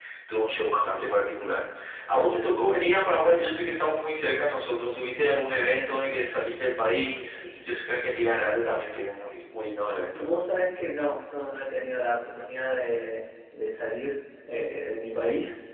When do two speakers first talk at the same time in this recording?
none

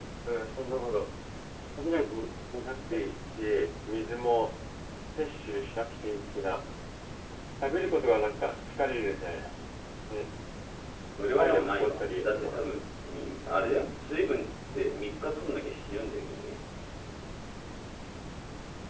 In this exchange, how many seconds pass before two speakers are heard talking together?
11.4 s

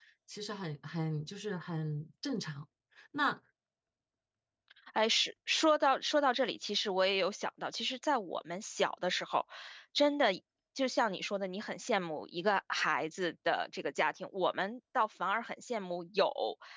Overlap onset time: none

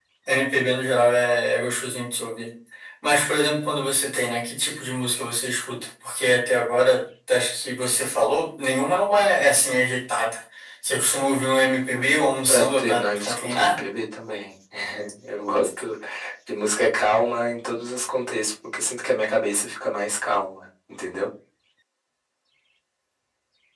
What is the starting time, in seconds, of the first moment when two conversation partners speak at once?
12.4 s

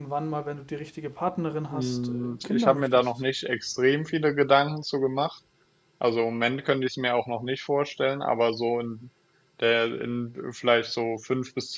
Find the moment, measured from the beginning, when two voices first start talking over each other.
1.7 s

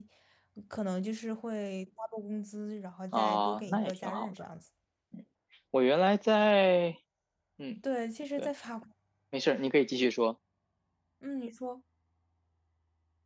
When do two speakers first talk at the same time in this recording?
3.1 s

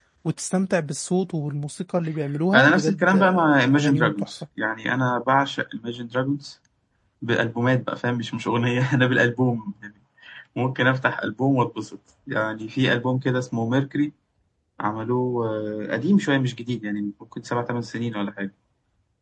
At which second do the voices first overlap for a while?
2.5 s

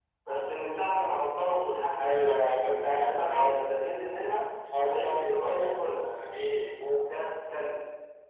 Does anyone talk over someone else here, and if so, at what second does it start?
2.0 s

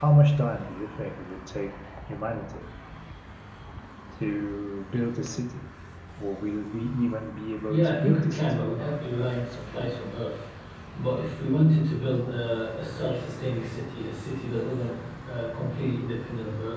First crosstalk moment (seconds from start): 7.7 s

